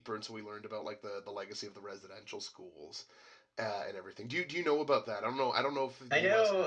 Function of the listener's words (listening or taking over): taking over